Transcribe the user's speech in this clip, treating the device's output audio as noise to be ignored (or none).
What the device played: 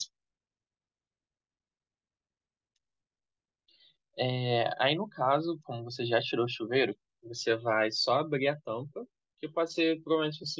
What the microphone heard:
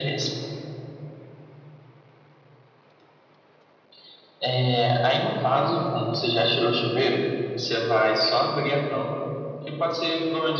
none